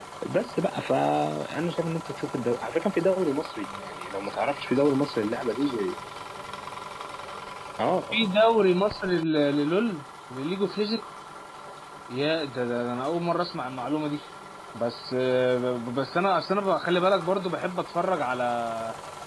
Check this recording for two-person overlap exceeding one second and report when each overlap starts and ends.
none

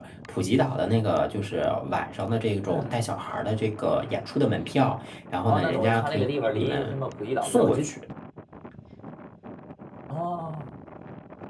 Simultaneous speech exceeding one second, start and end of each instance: 5.5-7.0

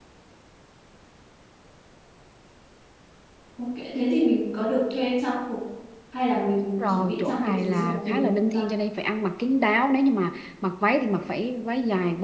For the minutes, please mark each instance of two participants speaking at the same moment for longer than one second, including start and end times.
6.6-8.7

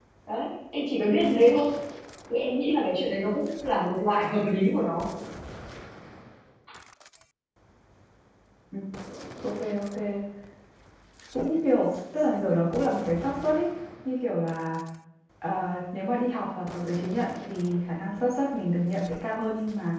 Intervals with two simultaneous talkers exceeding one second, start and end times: none

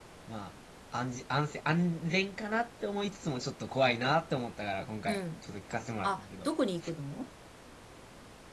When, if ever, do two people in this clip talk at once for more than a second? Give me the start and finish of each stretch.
none

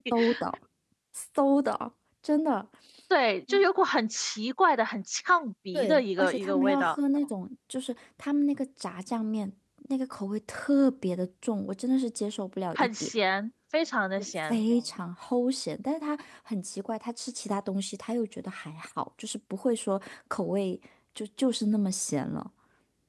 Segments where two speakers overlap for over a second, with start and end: 5.7-7.0

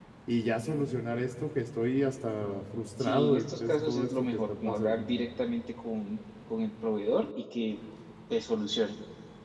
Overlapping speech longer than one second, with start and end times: 3.0-5.1

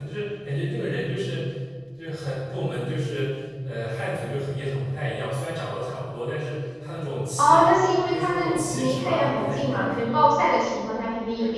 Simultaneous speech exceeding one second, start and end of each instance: 8.1-9.9

